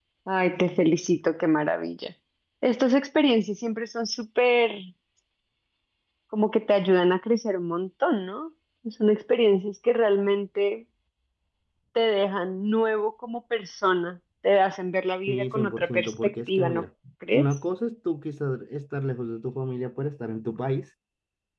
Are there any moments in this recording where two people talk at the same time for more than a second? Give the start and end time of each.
15.3-16.8

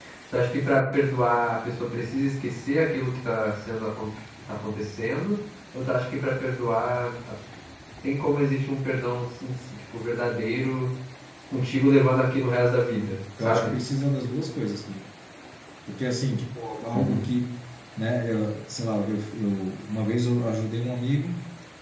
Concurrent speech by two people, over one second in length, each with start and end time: none

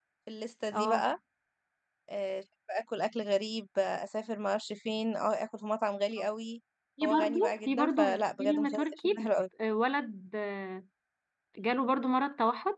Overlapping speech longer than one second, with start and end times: 7.0-9.3

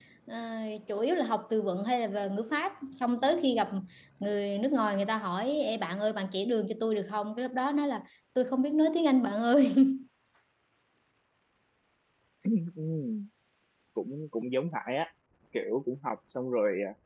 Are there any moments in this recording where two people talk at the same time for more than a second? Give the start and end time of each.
none

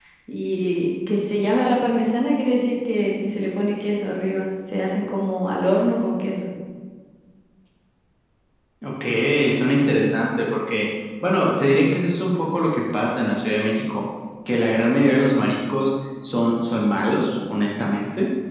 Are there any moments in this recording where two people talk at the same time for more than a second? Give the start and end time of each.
none

